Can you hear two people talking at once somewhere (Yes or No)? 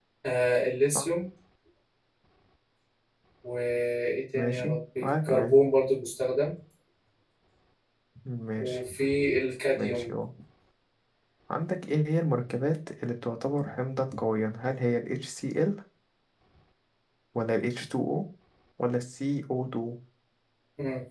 Yes